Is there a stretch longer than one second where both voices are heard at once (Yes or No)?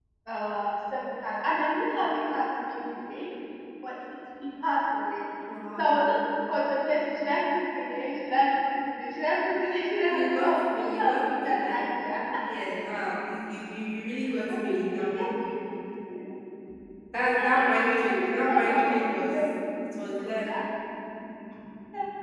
Yes